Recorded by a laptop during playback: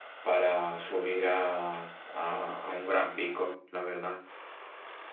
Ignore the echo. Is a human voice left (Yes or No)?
Yes